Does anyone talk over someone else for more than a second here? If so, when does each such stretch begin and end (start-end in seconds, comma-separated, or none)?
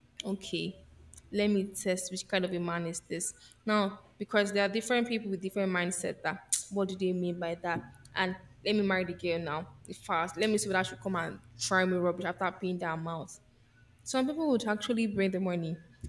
none